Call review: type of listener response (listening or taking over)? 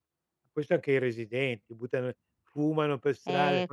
taking over